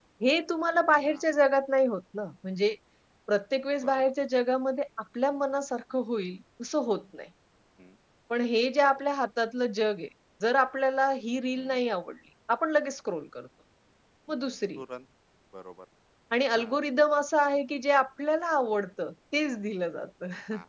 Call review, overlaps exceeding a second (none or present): none